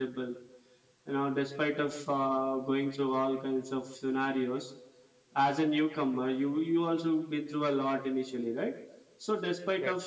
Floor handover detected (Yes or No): No